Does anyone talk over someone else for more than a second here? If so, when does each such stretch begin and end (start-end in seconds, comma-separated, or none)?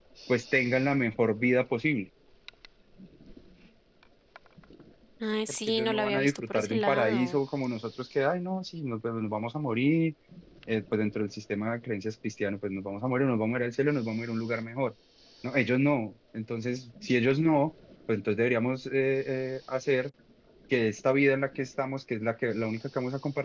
5.7-7.4